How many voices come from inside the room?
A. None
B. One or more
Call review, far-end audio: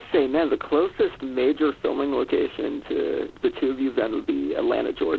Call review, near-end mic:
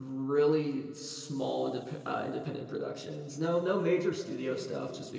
B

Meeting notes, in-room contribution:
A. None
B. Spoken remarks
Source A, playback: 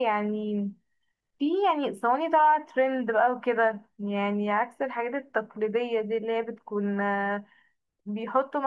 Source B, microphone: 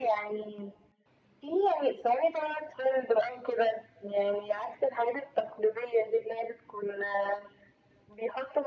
A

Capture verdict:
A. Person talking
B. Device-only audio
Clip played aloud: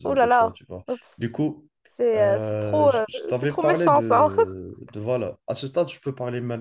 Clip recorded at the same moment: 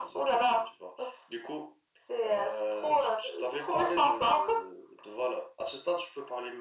B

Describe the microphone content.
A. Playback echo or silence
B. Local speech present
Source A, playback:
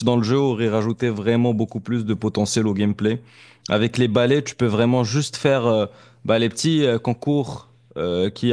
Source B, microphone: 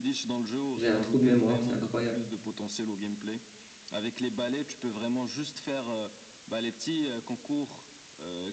B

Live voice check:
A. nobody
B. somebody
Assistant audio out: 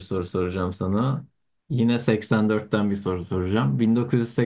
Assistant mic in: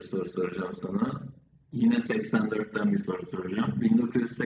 A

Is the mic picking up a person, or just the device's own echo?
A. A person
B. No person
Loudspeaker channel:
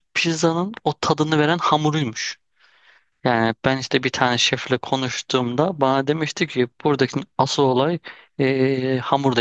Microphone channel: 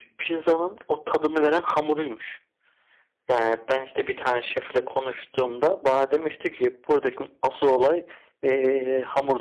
B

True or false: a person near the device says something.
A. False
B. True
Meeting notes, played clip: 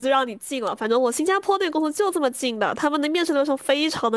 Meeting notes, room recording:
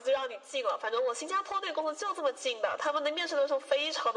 A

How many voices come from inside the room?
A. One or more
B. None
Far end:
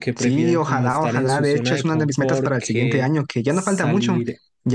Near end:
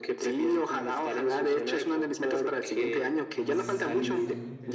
A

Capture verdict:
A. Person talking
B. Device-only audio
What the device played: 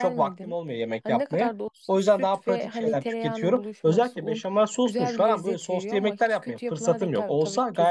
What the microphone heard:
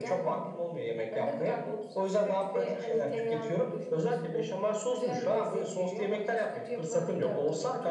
B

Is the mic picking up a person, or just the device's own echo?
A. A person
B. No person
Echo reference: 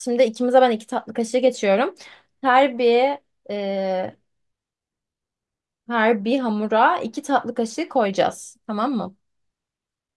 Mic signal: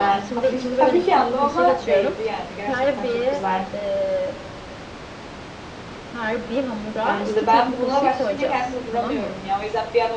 A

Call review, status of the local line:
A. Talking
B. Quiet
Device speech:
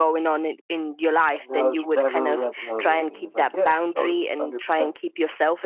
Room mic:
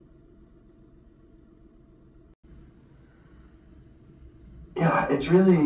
A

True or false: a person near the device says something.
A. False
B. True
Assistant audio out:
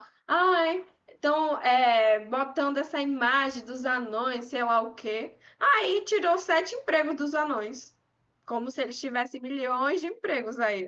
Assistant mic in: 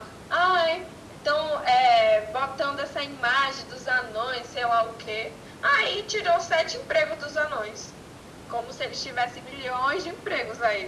A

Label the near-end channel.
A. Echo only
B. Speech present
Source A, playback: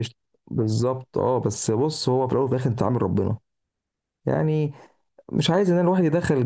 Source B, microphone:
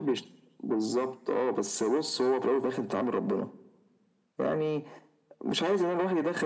A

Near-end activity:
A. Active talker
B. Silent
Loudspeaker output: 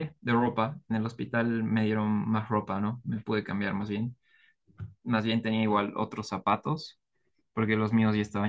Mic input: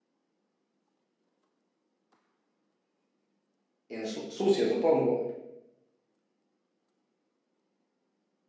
A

